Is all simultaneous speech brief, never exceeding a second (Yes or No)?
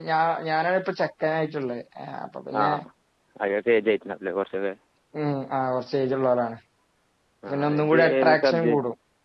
No